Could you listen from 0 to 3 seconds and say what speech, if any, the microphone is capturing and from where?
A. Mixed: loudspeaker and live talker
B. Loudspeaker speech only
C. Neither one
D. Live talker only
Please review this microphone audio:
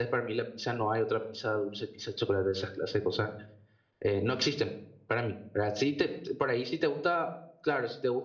D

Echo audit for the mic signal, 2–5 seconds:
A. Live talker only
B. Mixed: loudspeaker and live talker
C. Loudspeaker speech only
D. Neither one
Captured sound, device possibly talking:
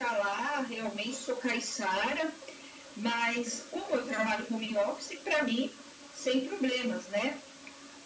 C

